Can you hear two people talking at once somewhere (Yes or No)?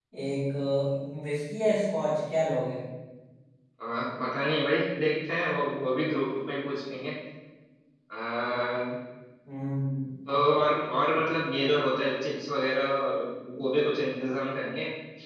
No